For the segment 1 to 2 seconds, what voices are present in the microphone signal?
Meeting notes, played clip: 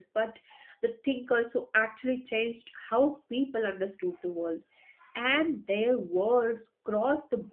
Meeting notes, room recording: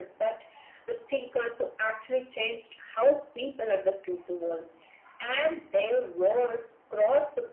echo only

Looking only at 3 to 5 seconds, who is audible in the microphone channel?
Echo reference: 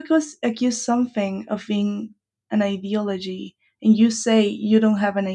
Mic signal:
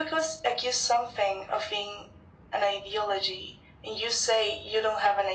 echo only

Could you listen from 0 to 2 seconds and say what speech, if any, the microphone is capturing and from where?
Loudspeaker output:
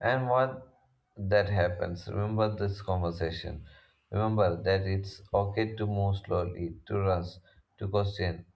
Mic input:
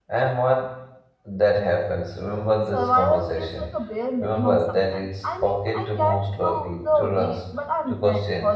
echo only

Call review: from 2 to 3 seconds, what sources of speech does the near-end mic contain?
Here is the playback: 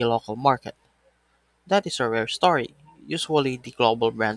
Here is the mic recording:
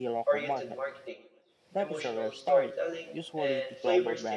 both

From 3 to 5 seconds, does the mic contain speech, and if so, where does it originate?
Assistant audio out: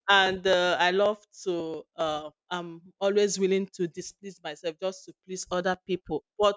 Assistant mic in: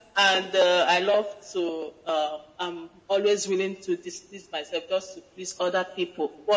echo only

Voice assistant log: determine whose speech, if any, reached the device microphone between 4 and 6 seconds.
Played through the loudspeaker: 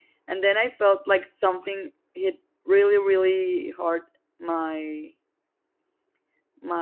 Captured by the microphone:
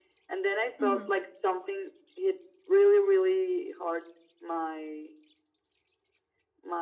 echo only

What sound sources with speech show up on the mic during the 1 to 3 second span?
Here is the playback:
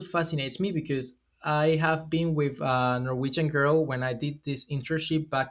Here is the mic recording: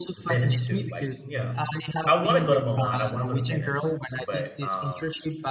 both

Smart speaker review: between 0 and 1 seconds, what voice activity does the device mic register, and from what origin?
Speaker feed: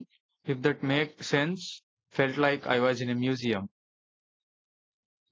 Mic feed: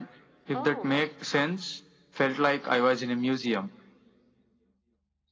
both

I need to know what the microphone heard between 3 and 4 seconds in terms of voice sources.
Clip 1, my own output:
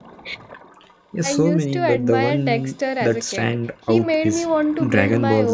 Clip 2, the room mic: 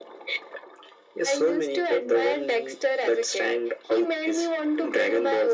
echo only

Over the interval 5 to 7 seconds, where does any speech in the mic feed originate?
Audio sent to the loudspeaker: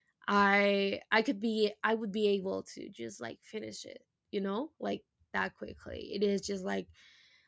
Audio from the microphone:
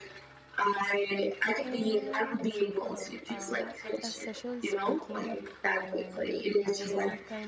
both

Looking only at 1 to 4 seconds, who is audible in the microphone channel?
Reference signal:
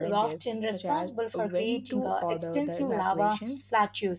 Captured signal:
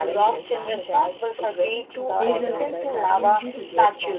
both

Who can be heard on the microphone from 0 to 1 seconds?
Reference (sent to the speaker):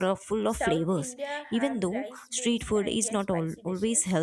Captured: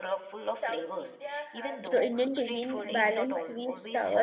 echo only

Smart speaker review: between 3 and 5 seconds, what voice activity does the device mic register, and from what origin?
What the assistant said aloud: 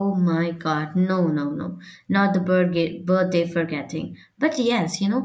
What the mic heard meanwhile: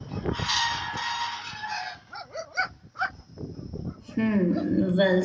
user only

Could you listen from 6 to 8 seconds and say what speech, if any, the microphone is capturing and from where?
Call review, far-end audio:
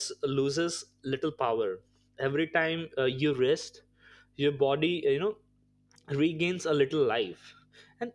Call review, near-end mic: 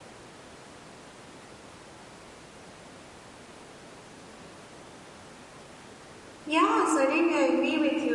user only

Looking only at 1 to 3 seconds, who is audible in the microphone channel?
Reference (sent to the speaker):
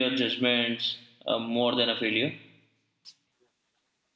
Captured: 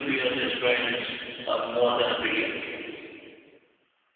echo only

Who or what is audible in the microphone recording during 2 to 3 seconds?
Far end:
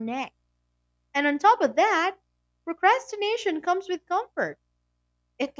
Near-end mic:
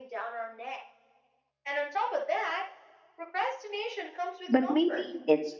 echo only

